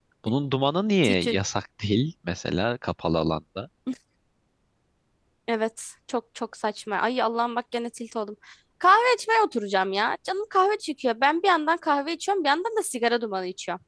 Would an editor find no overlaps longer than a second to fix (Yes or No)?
Yes